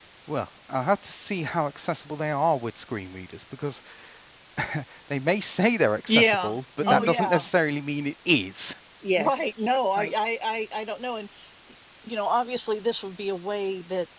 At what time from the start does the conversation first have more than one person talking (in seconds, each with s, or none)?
6.1 s